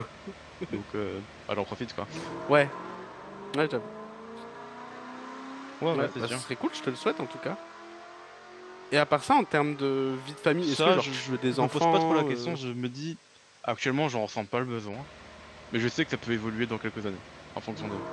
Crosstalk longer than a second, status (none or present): present